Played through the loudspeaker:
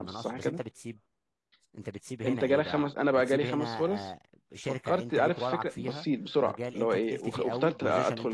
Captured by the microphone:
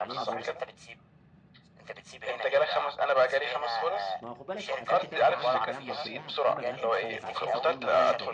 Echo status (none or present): present